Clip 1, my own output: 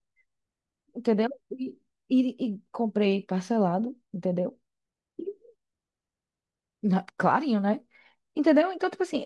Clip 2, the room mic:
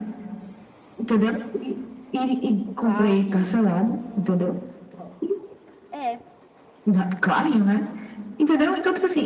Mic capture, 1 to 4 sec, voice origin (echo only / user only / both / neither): both